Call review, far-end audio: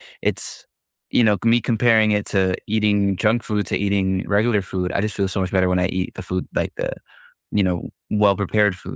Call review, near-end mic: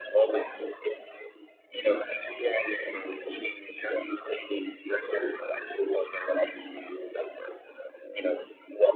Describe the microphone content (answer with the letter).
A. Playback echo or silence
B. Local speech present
A